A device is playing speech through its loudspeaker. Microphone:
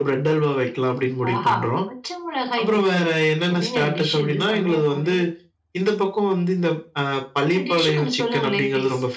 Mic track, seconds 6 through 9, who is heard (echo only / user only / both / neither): echo only